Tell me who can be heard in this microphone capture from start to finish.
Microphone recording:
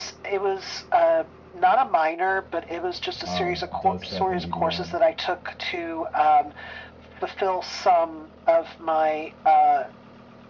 both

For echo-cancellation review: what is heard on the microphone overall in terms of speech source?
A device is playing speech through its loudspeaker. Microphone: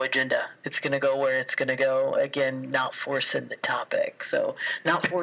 echo only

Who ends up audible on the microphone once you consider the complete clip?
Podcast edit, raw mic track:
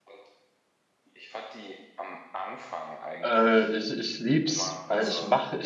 both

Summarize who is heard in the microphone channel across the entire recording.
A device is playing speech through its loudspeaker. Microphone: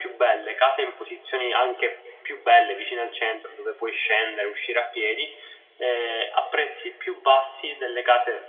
echo only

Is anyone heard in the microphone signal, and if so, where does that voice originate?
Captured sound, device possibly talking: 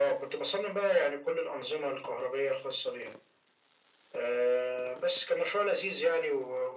echo only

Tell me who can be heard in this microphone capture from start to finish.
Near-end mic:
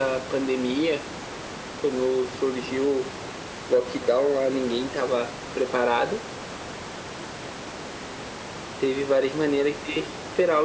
echo only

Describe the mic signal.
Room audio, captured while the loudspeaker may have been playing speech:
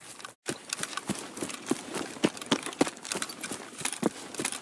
neither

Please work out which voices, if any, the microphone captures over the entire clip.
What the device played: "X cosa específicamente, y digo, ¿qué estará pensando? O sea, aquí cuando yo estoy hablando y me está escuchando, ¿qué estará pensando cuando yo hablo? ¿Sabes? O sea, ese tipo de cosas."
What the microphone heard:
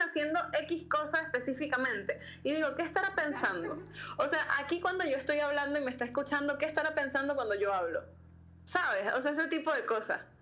both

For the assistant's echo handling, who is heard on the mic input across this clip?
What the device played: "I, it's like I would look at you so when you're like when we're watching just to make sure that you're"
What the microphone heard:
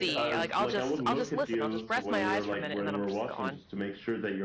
both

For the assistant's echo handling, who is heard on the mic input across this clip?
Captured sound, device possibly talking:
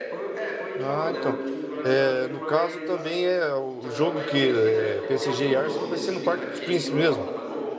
both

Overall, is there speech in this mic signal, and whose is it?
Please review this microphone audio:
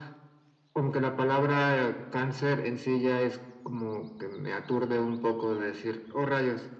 echo only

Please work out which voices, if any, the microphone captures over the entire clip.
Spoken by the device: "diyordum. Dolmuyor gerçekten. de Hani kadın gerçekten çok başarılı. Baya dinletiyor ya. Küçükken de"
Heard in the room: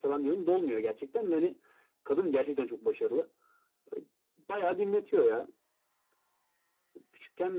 echo only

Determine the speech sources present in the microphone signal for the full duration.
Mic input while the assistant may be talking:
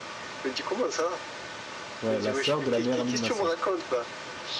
both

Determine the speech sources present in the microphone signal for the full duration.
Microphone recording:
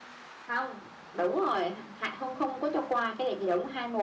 echo only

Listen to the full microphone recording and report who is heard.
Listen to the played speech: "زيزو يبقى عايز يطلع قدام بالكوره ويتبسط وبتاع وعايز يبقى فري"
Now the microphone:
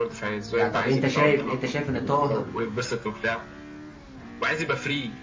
both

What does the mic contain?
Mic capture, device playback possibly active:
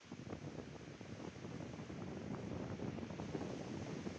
neither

